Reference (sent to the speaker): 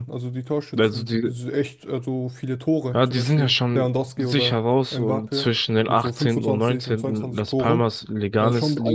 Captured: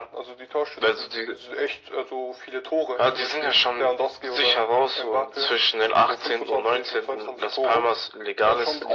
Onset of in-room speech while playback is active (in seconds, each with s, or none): none